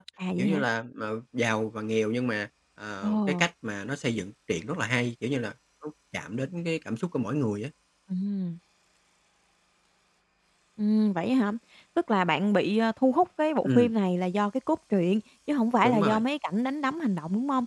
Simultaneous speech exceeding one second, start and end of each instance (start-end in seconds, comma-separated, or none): none